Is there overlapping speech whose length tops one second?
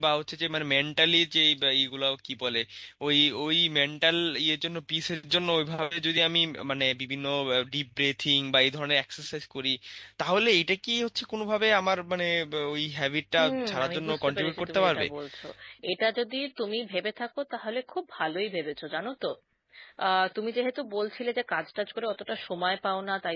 Yes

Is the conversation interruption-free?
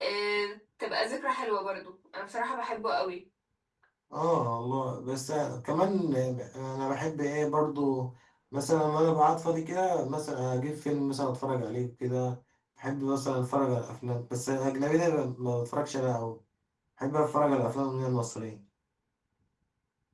Yes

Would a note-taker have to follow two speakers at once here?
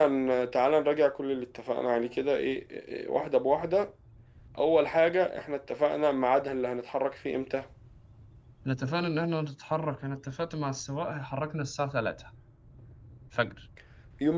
No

